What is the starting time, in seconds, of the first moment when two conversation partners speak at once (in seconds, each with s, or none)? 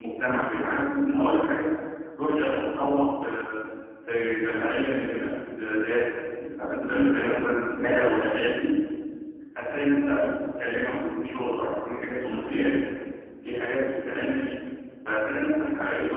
none